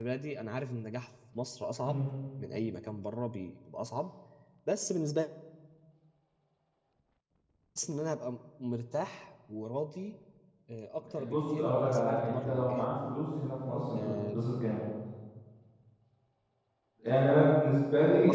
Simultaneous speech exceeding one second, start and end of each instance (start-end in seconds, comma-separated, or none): 11.2-12.8